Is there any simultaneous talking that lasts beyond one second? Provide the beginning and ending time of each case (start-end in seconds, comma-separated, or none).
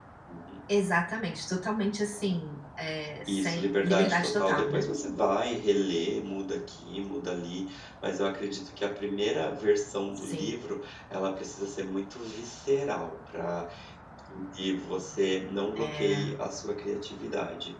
3.3-4.8